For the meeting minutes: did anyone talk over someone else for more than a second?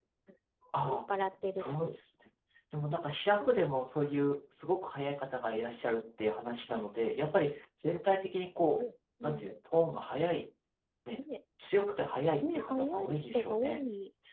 Yes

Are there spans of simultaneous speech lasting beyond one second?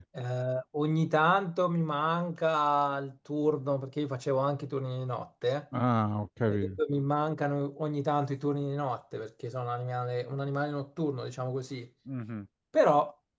No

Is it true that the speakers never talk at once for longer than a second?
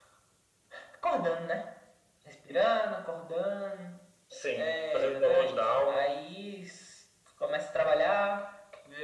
No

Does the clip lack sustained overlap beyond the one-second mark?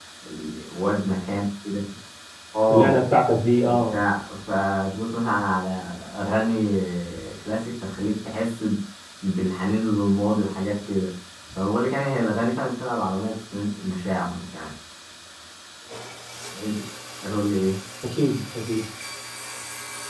Yes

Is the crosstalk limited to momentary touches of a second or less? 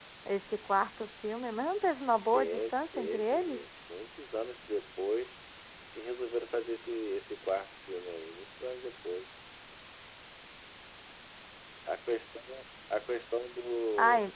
No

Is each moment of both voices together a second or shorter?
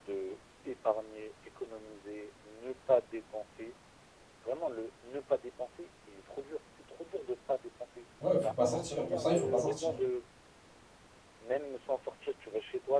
No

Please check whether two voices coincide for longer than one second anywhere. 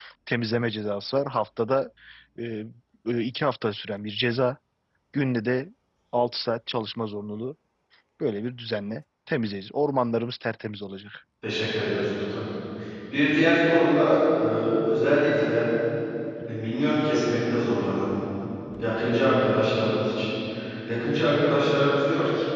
No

